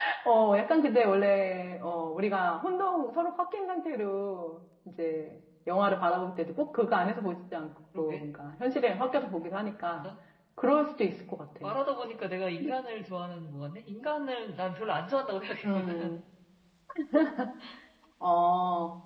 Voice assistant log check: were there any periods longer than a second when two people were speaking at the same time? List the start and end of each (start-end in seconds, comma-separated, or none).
none